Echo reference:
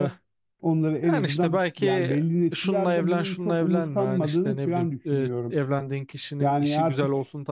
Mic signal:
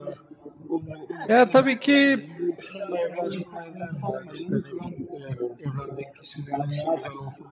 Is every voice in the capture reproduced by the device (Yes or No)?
No